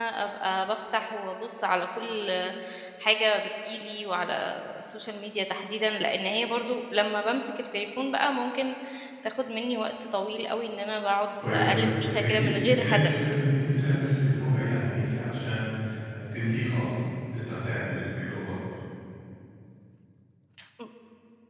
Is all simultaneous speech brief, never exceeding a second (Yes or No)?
No